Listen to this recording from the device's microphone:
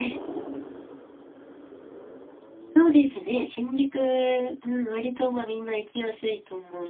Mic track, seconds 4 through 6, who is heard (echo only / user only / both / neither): user only